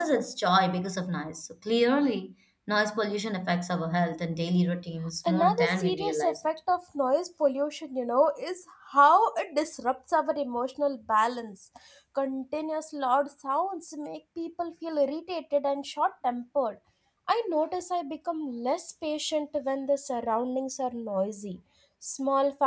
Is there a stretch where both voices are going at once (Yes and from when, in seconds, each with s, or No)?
Yes, from 5.2 s